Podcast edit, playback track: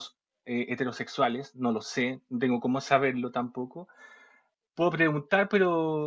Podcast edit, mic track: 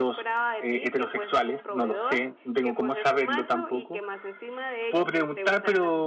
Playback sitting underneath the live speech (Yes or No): No